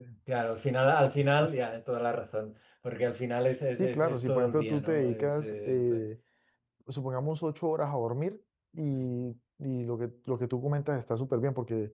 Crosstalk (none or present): present